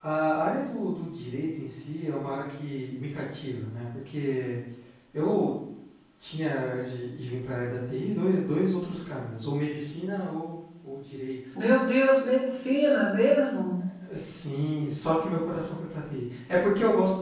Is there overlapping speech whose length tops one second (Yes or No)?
No